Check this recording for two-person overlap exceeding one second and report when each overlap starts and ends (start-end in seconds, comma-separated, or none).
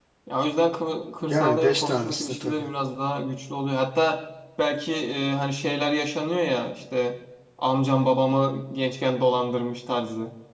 1.2-2.7